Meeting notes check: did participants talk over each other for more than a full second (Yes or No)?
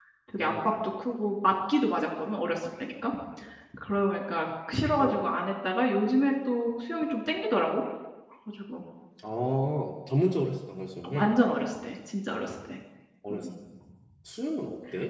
No